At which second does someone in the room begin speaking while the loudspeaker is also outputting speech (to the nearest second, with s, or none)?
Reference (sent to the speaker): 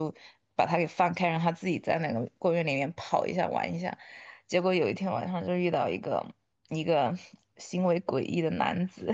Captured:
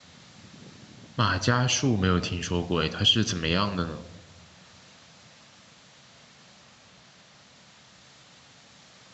1 s